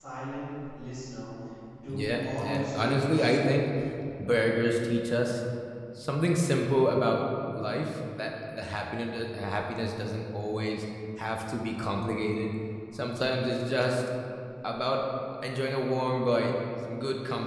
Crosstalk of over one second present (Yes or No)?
Yes